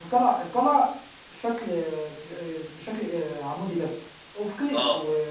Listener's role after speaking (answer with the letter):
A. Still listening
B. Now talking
A